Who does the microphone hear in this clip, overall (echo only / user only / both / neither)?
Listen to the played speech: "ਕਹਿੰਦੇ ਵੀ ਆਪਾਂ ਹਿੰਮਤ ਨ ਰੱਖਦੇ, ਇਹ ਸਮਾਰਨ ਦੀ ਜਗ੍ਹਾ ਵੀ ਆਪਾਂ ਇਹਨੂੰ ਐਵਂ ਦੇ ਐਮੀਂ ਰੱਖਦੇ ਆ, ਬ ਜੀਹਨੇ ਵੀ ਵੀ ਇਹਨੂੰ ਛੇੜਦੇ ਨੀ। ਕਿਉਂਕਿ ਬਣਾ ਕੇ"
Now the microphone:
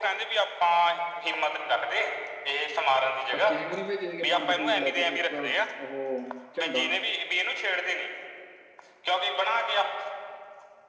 both